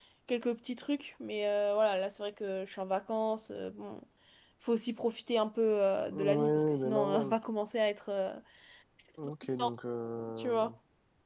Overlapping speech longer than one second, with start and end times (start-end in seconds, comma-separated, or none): 6.1-7.3